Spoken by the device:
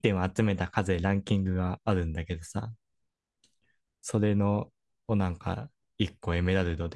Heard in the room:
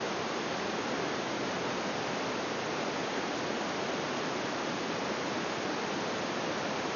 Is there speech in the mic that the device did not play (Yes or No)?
No